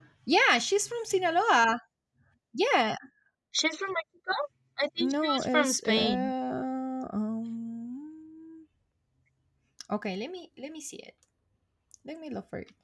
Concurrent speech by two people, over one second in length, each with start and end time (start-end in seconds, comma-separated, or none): 5.0-6.3